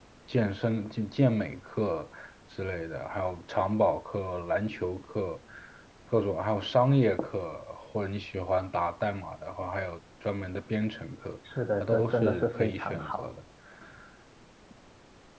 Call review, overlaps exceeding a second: present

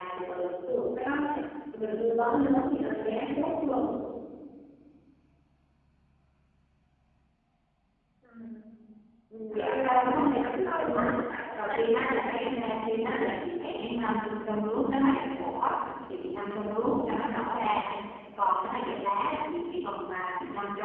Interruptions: present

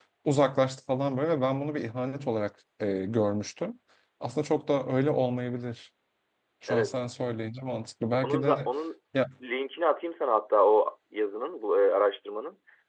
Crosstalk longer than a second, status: none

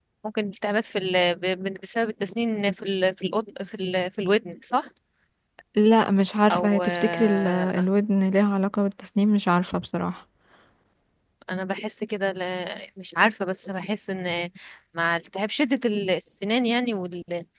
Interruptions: present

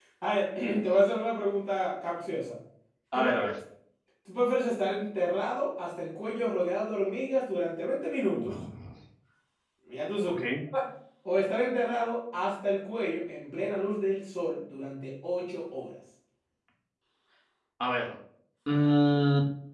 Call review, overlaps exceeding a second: none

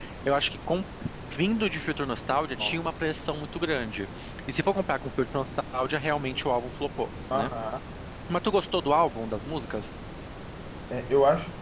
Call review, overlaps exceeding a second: none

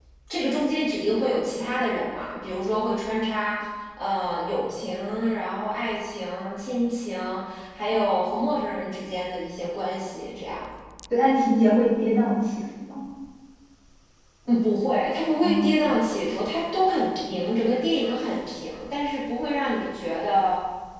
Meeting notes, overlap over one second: none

